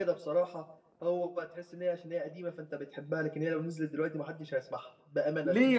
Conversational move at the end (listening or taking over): taking over